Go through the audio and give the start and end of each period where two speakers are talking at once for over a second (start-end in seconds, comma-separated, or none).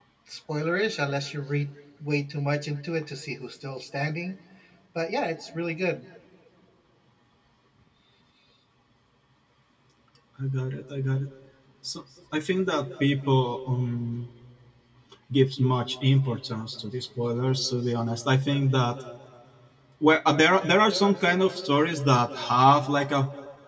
none